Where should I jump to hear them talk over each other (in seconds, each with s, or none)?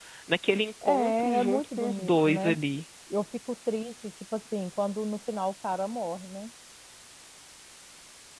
0.8 s